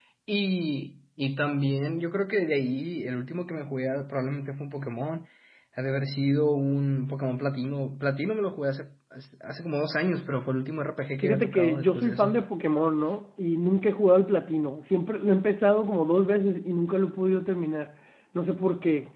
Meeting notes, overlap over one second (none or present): present